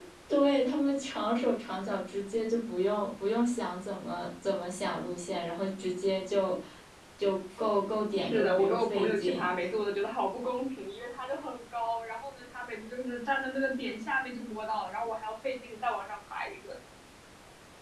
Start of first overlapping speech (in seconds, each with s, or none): 8.2 s